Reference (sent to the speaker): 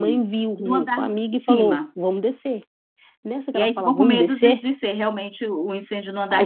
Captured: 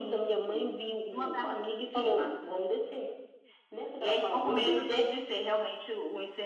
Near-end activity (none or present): none